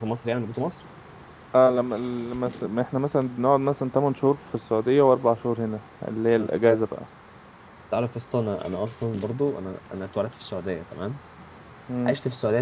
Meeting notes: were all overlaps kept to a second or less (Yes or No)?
Yes